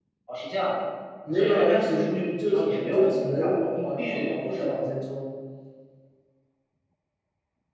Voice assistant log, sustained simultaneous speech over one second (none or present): present